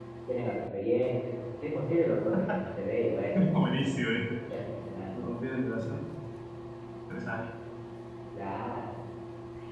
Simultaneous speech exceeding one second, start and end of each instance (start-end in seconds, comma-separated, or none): none